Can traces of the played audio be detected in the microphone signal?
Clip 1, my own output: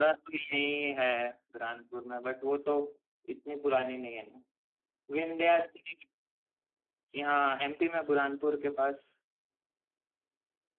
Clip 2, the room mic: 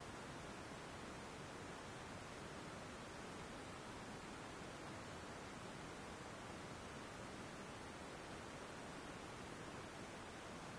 No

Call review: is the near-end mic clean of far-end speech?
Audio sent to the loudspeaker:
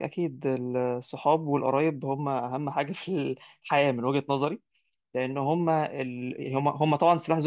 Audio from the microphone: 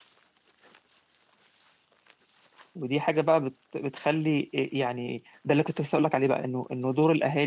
Yes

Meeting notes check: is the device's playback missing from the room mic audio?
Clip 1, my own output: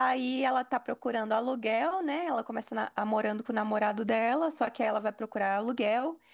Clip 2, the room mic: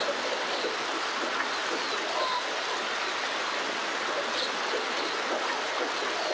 Yes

